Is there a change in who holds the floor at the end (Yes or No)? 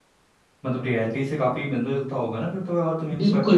Yes